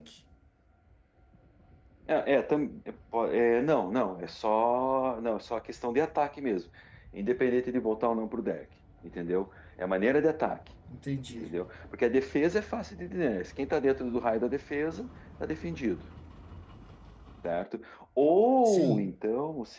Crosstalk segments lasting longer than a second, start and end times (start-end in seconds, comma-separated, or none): none